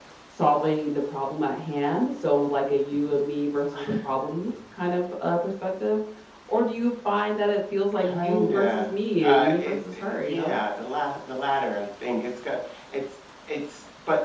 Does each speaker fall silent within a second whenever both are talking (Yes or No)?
No